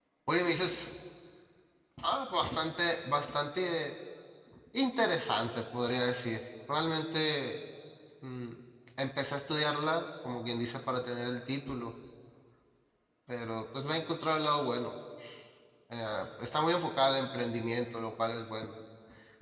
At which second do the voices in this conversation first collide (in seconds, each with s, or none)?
none